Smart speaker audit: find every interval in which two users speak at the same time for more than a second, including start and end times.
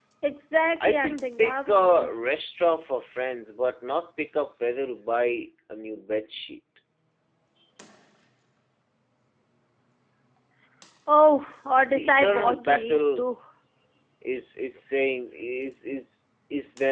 0.8-2.1, 11.8-13.2

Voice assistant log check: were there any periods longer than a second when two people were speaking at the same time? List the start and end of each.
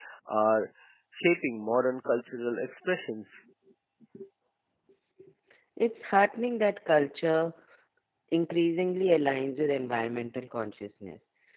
none

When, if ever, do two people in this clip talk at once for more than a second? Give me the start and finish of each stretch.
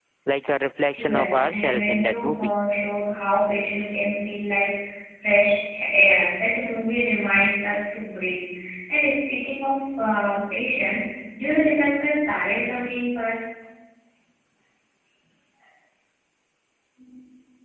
1.0-2.5

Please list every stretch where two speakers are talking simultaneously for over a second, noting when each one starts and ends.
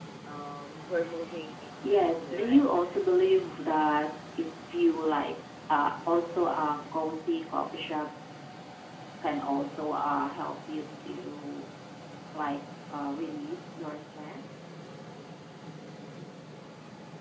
1.9-3.3

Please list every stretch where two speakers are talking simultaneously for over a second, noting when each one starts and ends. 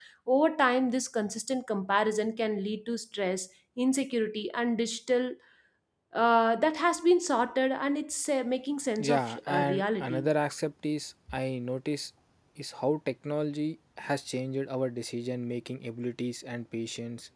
9.0-10.3

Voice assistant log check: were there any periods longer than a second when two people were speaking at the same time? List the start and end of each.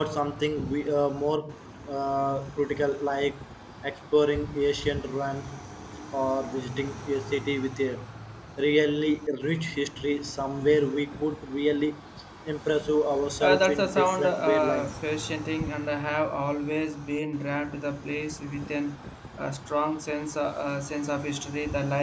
13.4-14.9

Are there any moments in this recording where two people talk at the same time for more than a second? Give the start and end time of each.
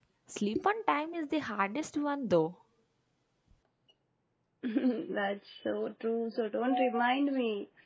none

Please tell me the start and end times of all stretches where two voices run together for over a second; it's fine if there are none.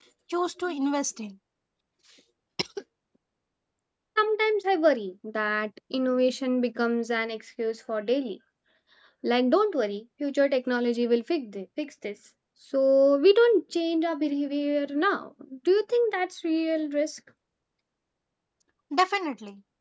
none

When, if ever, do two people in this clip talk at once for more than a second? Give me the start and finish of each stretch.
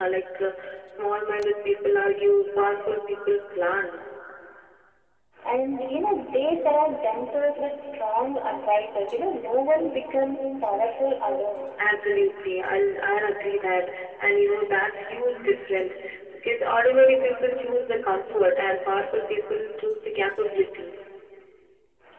none

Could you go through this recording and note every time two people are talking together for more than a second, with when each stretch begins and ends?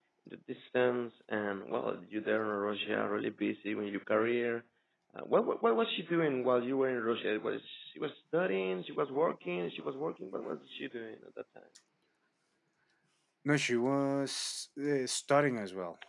none

